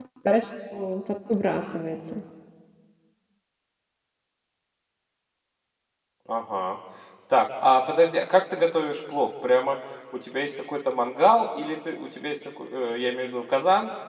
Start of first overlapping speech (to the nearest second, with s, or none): none